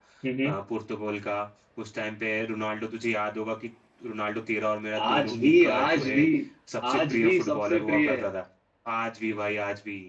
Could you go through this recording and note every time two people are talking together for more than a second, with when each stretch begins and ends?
5.0-6.2, 6.9-8.3

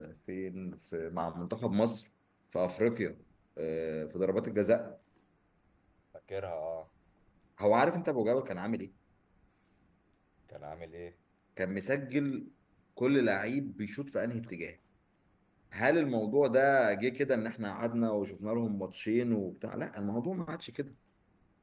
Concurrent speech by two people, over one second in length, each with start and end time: none

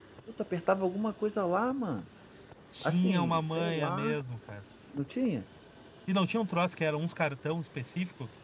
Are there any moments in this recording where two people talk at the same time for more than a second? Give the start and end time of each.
2.8-4.1

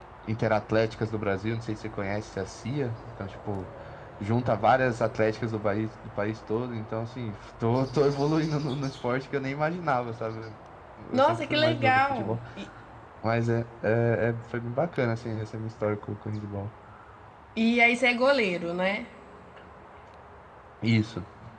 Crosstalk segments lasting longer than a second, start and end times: 11.1-12.4

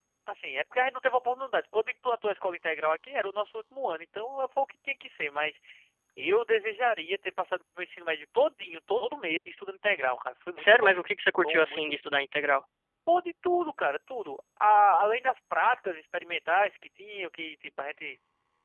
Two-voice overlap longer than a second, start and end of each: none

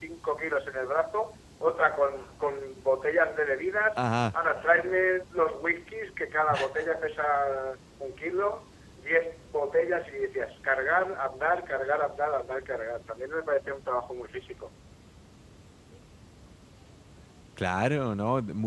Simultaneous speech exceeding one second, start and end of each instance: none

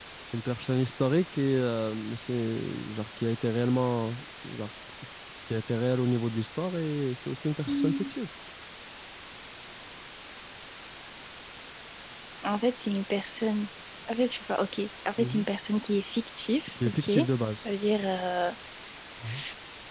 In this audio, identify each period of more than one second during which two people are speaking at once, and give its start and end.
none

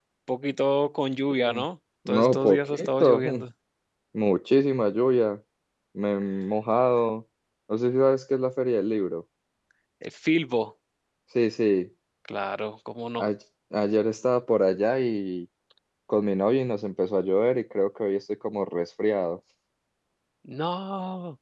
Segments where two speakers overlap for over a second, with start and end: 2.1-3.4

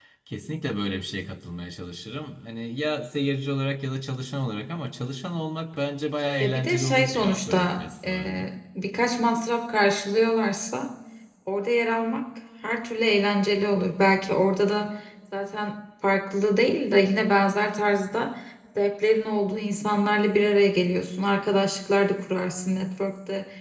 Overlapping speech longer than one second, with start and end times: 6.4-8.4

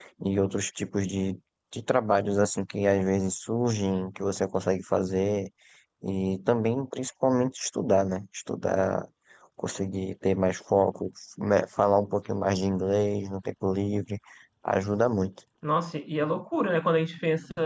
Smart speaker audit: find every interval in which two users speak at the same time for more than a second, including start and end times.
none

